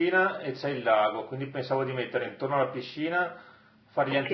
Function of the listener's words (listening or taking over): listening